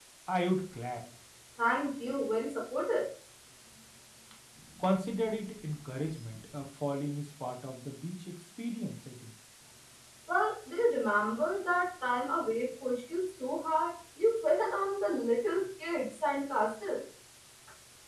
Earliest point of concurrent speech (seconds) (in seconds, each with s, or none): none